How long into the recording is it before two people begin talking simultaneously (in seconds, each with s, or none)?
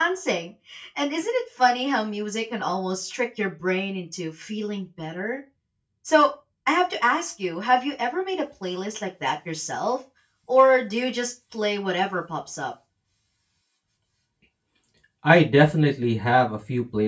none